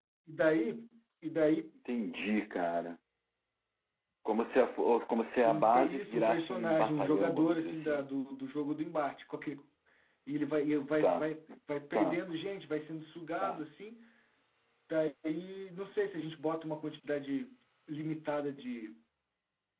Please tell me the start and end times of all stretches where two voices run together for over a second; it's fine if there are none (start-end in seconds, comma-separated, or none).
5.5-8.0